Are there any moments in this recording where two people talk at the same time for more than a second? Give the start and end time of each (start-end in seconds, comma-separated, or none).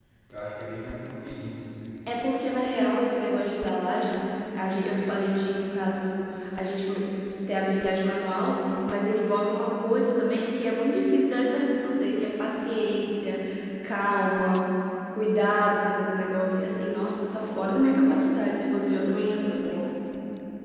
none